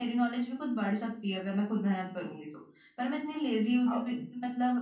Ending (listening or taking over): listening